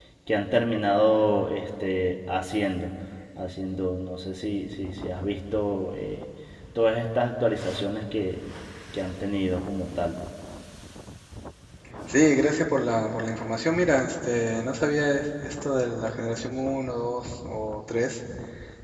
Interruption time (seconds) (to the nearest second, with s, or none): none